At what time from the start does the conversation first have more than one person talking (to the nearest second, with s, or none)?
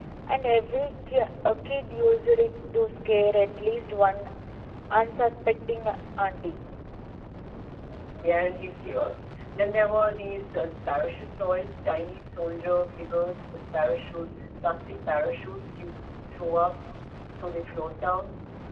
none